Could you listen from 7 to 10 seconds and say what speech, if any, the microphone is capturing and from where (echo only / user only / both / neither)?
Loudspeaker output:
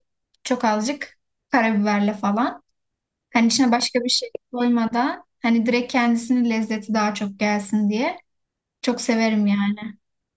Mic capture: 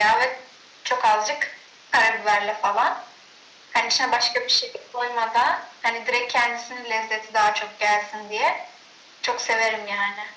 echo only